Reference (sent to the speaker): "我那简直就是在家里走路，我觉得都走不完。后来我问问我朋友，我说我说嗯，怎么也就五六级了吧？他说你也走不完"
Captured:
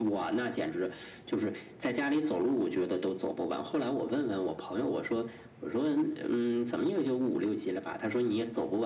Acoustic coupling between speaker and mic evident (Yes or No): Yes